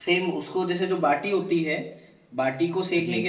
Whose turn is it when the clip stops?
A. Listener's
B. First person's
B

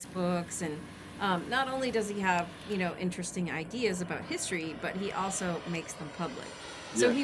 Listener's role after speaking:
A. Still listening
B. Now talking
A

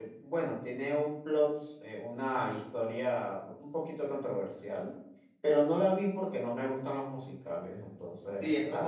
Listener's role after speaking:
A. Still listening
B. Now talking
B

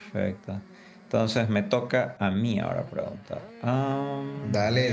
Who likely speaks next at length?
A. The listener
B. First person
A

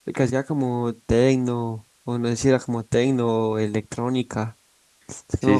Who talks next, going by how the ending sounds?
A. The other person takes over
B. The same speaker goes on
A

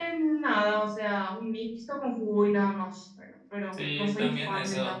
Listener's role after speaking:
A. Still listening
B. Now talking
B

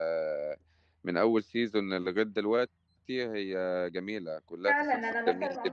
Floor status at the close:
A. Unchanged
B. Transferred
B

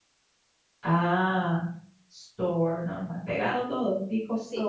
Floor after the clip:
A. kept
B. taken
B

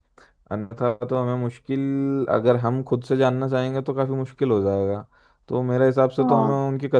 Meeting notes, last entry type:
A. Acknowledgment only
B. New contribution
A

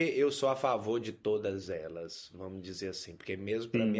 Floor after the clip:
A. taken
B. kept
B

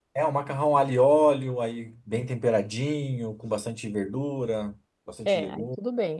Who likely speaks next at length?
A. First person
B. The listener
B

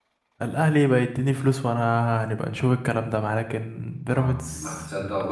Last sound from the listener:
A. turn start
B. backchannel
A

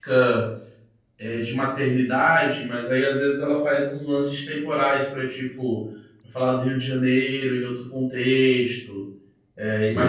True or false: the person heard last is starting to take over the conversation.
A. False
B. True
B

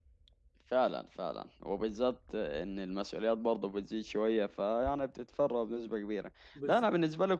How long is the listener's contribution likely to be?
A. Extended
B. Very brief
B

